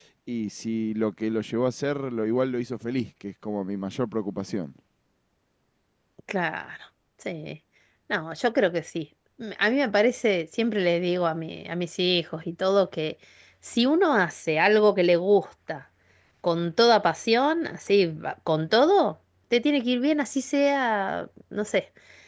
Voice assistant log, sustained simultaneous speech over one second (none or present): none